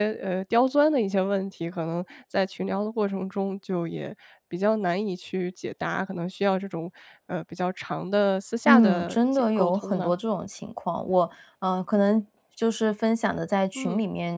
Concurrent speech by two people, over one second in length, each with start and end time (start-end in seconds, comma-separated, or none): 8.7-10.1